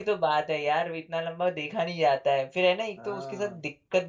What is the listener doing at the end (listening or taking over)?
listening